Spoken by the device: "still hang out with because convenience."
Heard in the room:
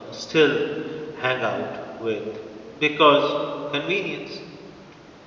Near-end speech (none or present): none